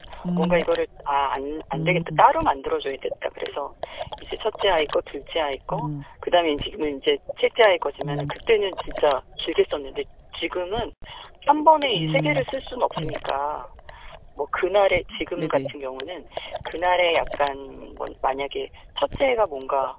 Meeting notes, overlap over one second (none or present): none